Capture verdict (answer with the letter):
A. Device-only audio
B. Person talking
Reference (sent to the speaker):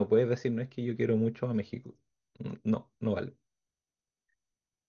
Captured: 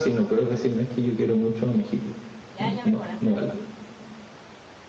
B